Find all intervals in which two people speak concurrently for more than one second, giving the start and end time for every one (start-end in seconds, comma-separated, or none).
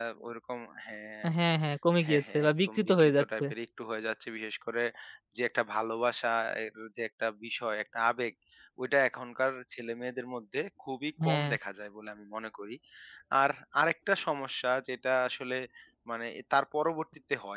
2.0-3.4